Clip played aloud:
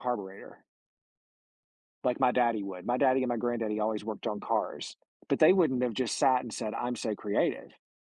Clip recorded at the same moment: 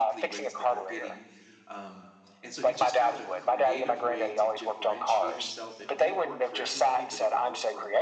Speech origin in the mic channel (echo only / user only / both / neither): both